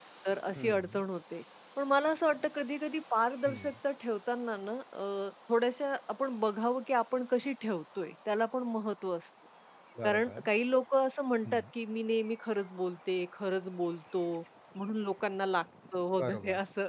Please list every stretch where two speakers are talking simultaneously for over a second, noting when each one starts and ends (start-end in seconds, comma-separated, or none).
none